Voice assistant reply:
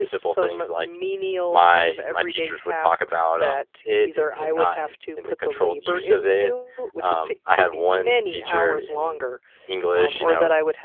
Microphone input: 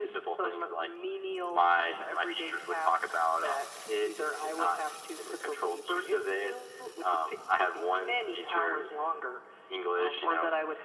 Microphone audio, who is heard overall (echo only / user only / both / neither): echo only